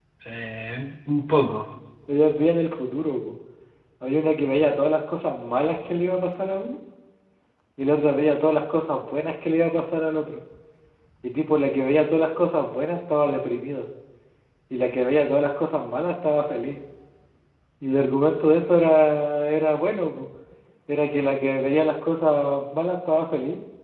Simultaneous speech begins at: none

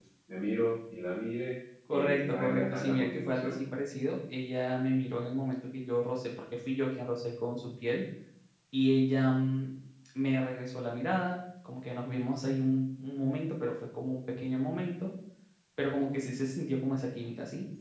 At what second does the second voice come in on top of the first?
1.9 s

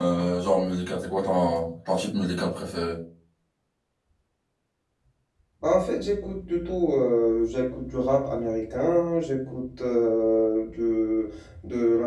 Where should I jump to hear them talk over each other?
none

